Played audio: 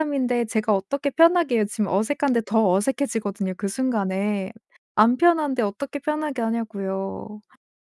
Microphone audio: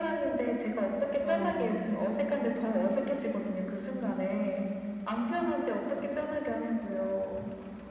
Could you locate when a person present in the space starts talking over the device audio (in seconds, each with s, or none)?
1.2 s